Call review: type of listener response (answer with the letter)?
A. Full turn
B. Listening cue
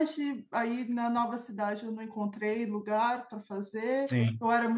B